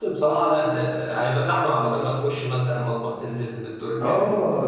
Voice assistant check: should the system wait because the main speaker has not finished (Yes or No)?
No